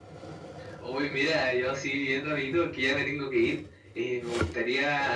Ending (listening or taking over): listening